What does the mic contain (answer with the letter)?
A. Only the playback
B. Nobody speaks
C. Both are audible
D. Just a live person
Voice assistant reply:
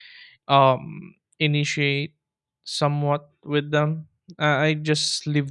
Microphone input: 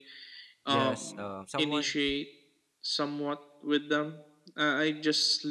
C